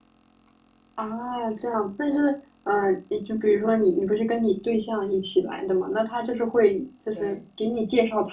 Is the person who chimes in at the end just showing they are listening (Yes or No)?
Yes